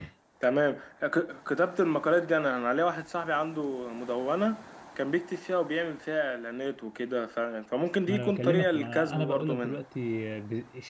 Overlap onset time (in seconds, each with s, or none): 8.1 s